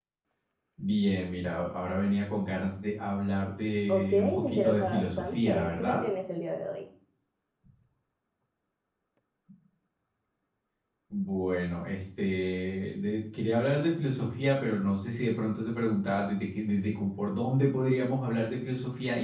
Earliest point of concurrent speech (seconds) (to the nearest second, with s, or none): 4 s